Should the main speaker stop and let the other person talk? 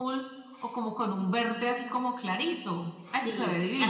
Yes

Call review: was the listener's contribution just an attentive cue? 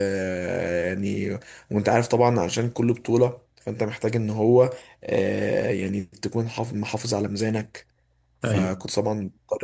Yes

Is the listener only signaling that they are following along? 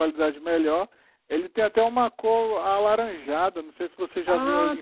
No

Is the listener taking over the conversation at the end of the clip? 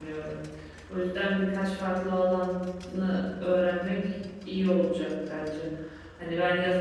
No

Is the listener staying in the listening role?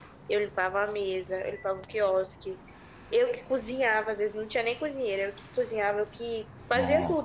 Yes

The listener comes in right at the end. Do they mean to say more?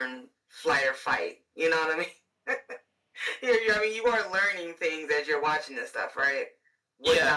No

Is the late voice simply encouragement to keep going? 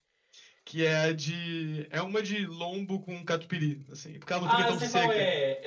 No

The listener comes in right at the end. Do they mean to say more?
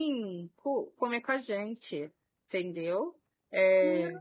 Yes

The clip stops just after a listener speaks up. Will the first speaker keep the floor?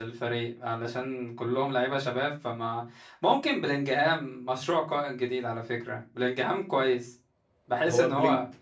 No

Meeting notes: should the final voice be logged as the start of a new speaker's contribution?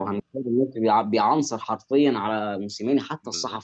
No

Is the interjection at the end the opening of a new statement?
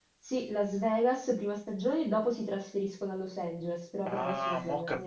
Yes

